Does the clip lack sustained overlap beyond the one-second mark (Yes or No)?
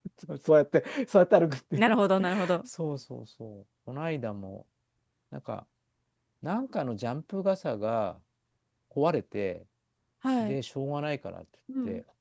Yes